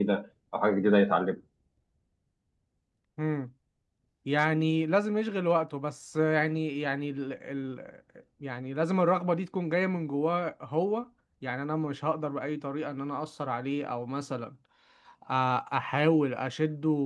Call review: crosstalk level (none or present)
none